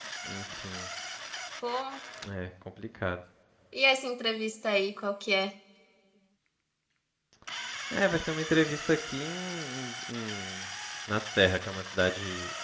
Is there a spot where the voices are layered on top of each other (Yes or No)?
No